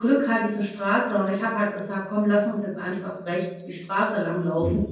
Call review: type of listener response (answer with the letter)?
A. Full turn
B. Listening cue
A